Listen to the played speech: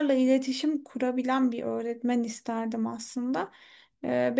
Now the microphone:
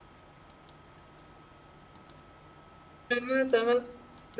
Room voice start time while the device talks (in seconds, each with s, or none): 3.1 s